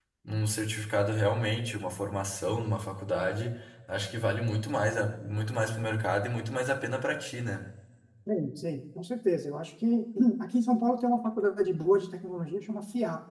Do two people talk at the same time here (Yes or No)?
No